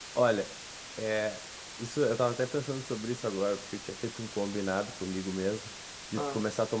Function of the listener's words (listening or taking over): listening